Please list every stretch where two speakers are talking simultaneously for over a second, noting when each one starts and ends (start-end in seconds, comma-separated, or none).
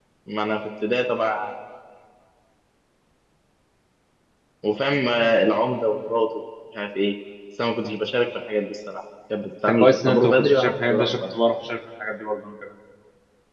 9.7-11.2